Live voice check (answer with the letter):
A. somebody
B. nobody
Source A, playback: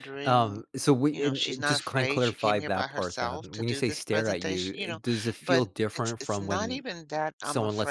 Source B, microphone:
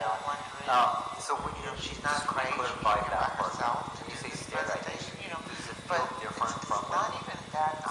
B